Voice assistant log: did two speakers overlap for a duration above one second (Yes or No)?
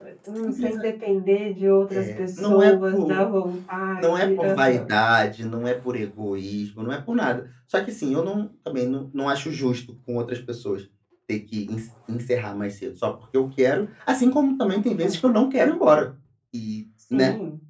Yes